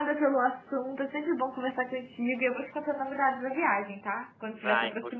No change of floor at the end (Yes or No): No